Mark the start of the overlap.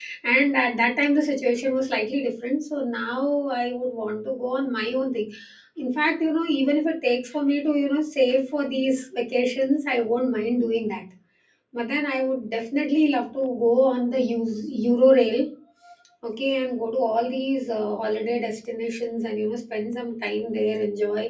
none

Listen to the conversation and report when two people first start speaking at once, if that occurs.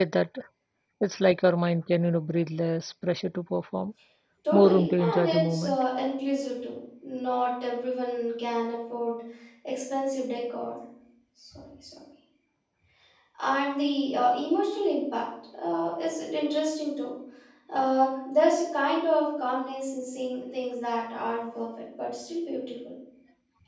4.5 s

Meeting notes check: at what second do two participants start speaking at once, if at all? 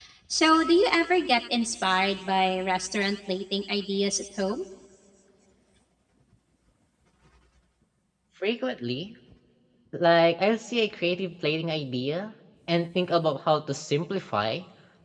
none

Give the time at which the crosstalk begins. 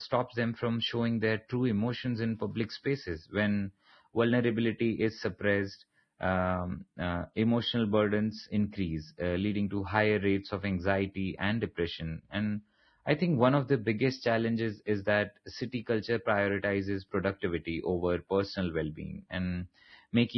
none

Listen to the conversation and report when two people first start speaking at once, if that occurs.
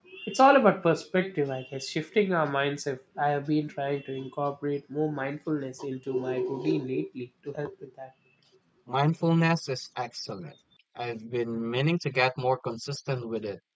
none

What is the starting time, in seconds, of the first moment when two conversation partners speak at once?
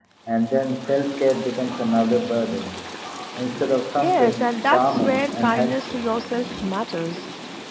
4.0 s

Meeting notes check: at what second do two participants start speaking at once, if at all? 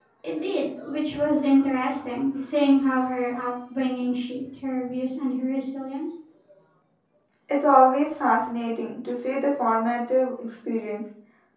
none

